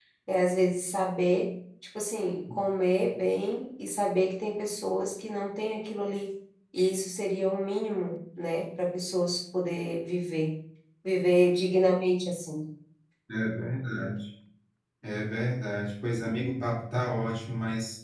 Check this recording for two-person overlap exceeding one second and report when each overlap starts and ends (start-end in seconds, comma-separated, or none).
none